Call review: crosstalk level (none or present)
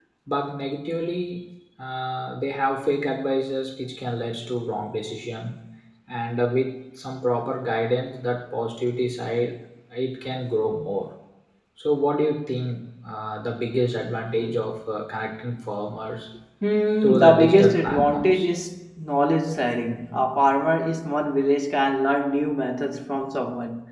present